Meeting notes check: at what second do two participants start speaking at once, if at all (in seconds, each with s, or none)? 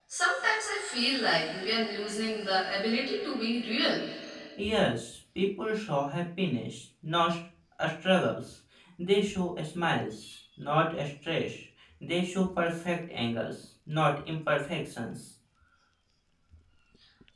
none